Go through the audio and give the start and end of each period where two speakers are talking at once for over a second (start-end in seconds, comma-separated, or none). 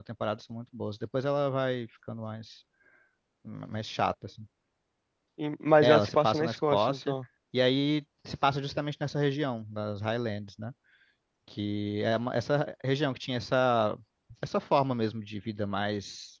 5.8-7.1